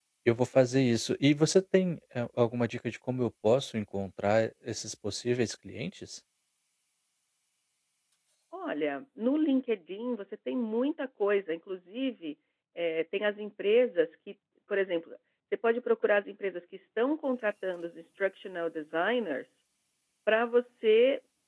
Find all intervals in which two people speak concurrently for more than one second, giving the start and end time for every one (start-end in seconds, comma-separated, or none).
none